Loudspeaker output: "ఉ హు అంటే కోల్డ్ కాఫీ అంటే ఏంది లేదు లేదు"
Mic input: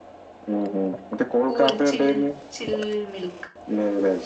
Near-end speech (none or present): present